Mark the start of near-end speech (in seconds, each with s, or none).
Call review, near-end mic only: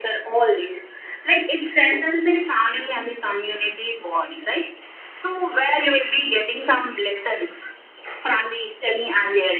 none